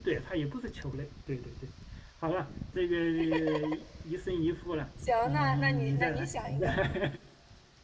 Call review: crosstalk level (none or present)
present